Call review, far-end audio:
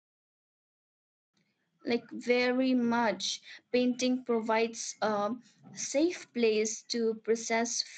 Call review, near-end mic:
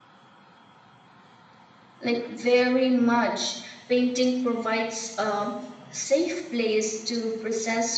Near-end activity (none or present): none